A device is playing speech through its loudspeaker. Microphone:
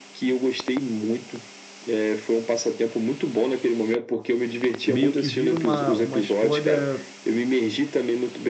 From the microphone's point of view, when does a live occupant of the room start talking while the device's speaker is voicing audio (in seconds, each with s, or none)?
4.9 s